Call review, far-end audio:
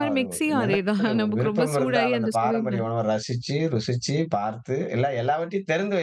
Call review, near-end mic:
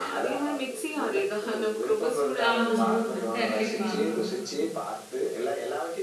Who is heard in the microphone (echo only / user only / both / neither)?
both